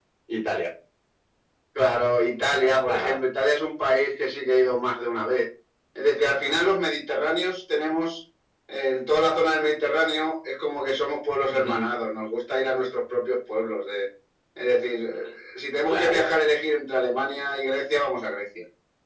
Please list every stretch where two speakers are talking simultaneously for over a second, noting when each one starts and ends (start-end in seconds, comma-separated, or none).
none